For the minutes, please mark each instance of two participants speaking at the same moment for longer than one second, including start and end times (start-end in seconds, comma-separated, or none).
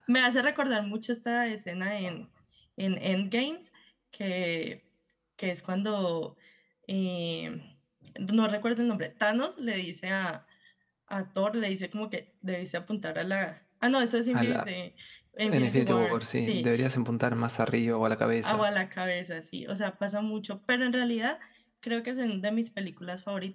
15.4-16.7